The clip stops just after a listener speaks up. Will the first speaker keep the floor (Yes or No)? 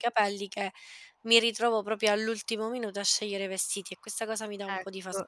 No